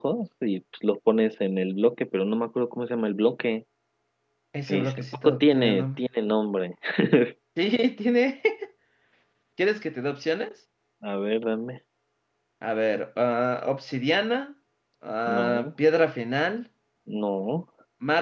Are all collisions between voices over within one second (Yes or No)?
No